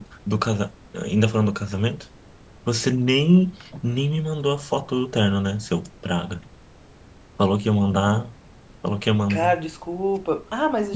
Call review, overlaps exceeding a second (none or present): none